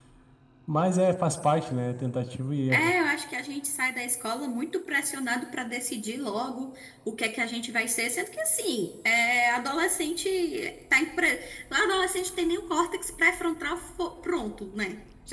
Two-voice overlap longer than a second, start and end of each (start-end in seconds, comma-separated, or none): none